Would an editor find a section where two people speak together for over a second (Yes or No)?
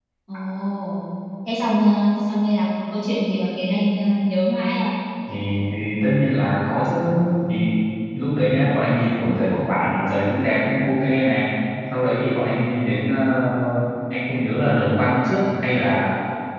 No